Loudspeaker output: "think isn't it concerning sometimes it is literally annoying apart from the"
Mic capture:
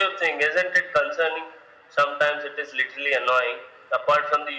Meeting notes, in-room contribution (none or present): none